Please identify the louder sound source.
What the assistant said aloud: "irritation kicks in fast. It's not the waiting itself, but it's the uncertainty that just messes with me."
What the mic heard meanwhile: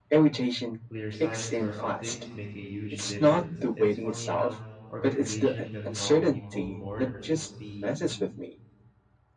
echo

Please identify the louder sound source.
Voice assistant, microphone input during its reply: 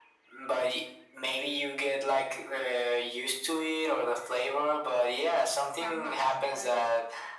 echo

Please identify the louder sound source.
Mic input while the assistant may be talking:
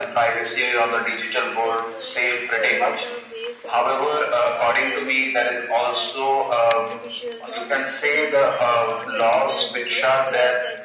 echo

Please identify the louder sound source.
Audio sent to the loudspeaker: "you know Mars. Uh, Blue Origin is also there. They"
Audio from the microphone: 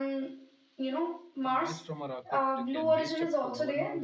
echo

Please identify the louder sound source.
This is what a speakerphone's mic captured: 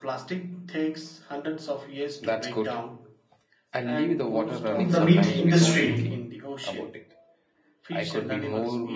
user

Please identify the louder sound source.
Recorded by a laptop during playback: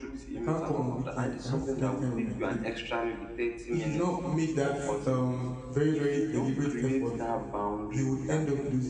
user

